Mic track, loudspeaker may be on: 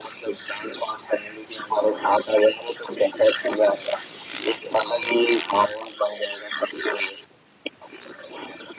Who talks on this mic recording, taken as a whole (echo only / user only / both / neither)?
echo only